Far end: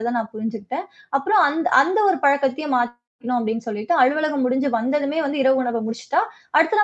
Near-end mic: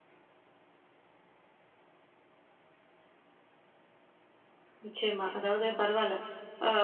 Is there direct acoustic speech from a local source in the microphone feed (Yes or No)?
Yes